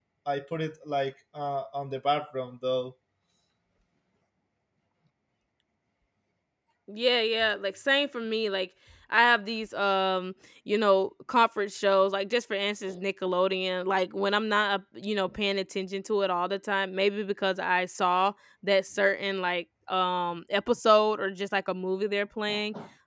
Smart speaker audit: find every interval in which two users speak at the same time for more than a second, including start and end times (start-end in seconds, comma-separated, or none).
none